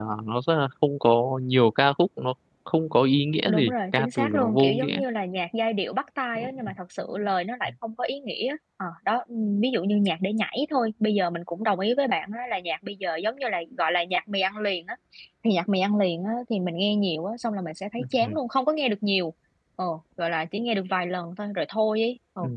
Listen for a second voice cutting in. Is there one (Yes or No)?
Yes